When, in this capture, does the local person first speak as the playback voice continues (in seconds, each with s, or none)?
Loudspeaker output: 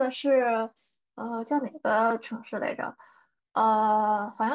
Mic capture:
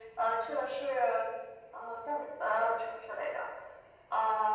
none